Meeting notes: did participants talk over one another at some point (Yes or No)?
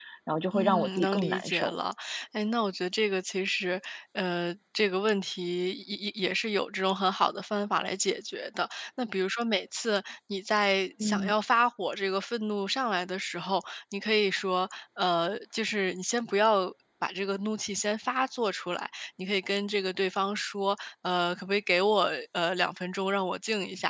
Yes